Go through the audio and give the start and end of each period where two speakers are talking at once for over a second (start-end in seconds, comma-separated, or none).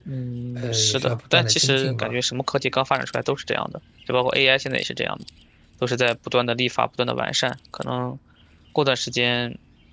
0.6-2.1